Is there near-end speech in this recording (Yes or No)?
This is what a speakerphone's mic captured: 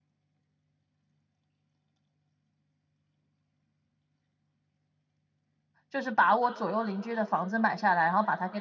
Yes